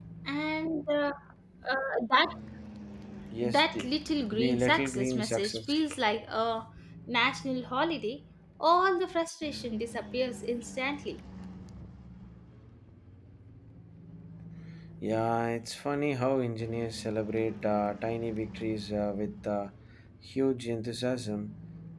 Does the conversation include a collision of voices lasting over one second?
Yes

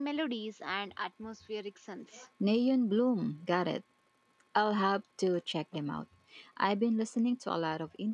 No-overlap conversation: Yes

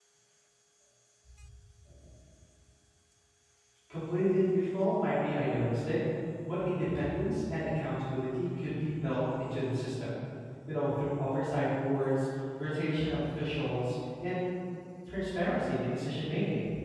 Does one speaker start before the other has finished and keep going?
No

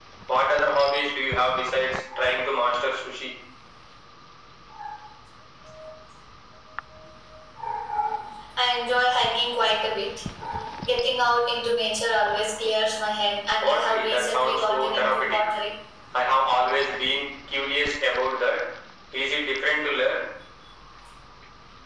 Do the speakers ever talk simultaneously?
Yes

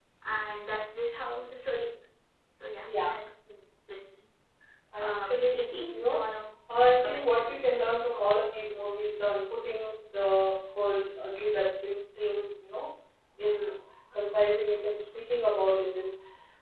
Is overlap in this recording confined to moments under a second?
No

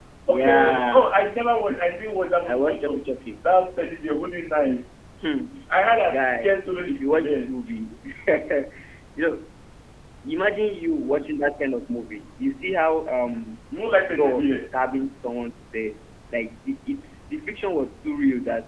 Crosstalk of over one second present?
Yes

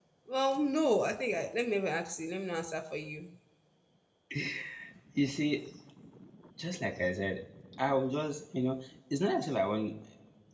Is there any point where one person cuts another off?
No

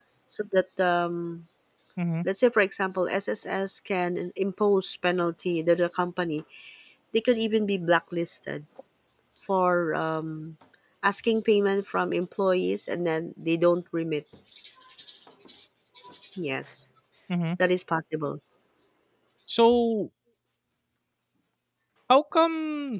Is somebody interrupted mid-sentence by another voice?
No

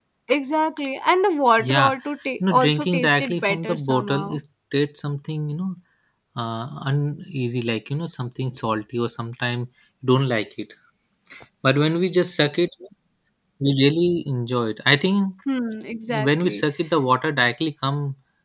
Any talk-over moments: Yes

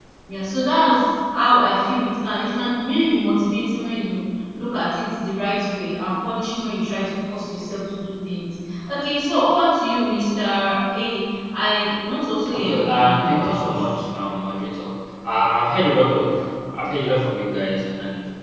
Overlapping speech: Yes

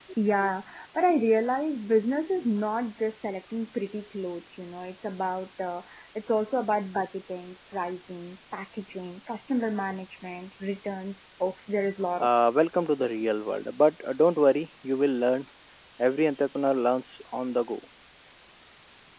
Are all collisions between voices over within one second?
Yes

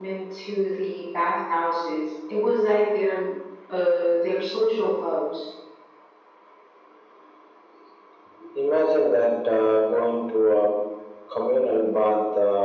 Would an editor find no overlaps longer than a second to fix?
Yes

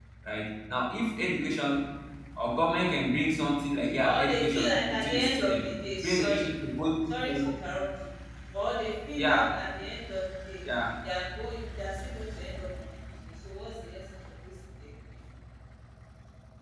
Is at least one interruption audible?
Yes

